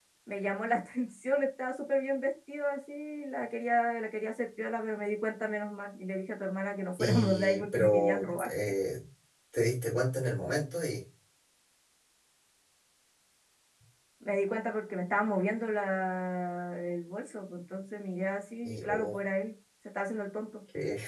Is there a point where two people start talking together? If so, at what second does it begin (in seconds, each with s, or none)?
7.0 s